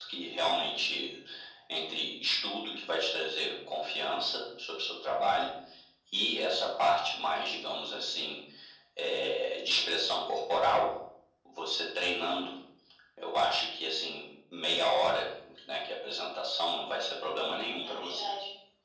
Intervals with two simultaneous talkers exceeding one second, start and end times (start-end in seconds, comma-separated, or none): 16.9-18.3